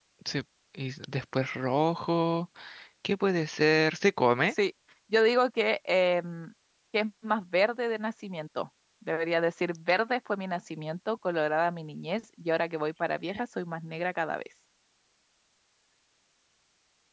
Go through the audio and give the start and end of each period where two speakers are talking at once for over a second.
none

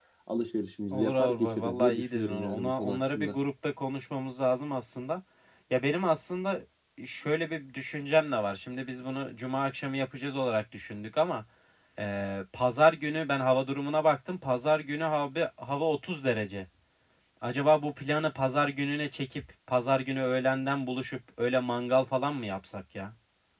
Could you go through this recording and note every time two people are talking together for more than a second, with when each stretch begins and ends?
0.9-3.4

